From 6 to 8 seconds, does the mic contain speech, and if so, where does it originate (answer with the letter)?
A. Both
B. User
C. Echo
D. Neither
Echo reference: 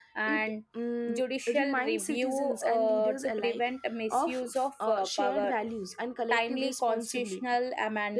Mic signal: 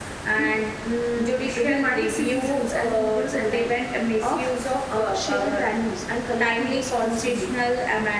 C